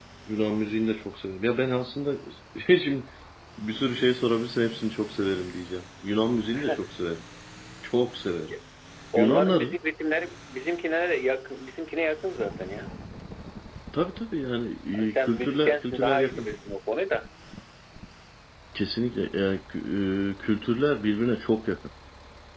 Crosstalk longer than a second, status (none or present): present